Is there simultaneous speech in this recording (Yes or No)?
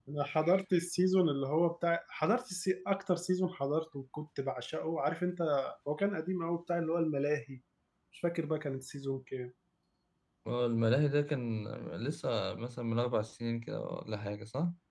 No